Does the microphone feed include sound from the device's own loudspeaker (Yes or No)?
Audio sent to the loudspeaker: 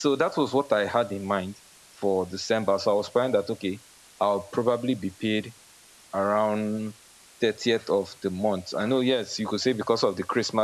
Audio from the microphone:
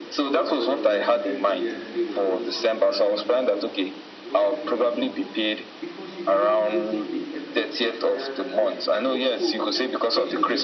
Yes